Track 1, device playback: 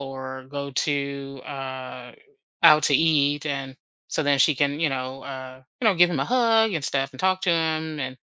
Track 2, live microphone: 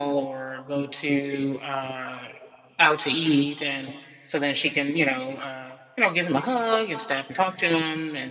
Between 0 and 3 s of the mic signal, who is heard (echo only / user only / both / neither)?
echo only